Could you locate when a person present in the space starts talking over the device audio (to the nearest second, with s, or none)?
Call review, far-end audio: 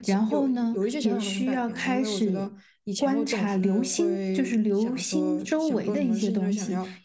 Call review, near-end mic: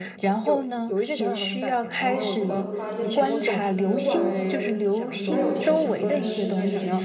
2 s